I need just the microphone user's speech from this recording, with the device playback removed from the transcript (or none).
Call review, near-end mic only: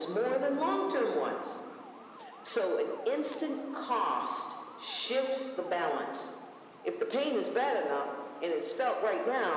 none